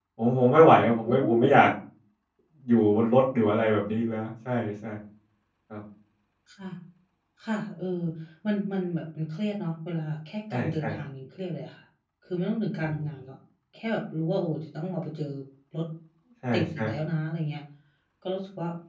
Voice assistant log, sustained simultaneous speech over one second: none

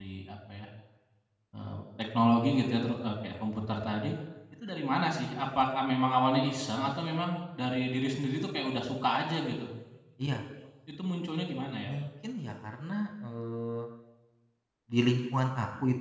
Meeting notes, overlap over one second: none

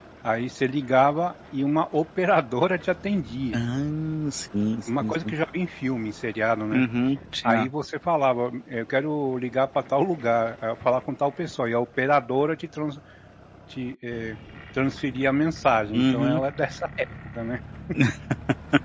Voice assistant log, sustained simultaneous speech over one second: none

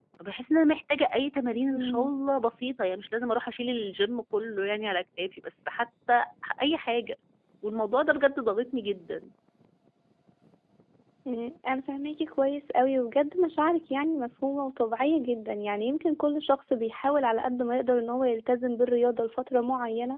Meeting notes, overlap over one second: none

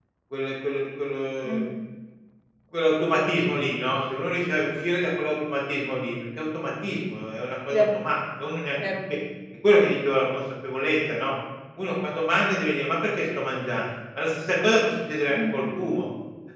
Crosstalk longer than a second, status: none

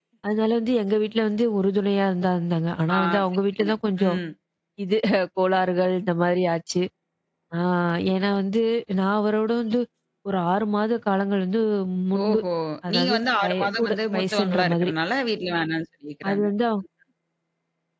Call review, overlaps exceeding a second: present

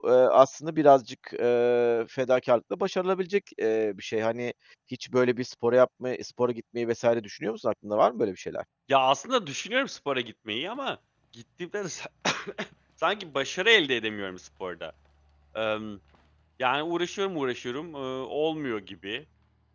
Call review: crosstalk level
none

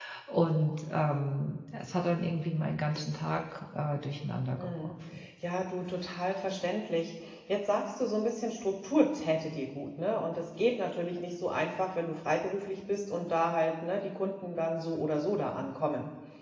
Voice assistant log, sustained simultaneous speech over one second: none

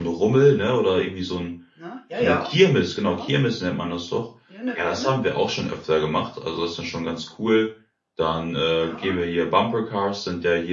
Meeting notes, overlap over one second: none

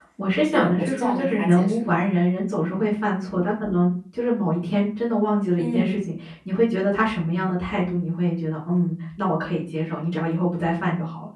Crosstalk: present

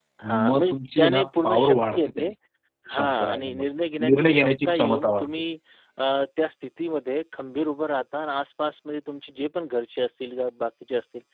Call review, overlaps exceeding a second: present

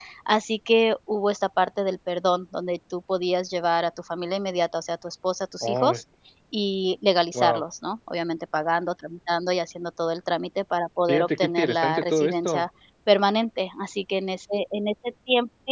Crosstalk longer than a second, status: present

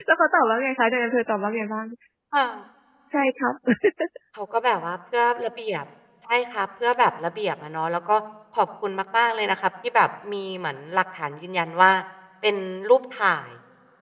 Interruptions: none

